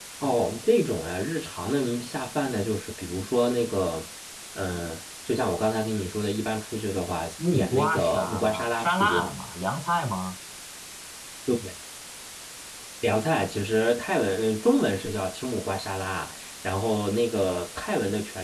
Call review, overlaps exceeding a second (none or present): present